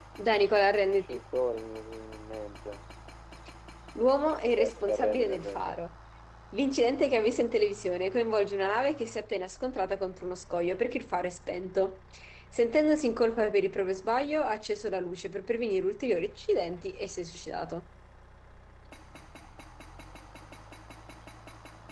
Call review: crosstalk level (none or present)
present